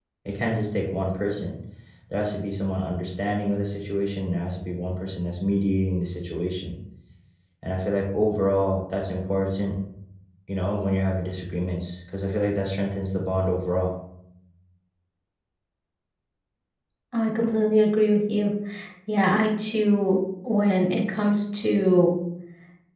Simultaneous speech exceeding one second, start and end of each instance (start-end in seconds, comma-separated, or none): none